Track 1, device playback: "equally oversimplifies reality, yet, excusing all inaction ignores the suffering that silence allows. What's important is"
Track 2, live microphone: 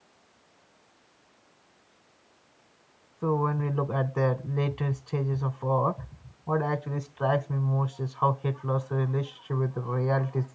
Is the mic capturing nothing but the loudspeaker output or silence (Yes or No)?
No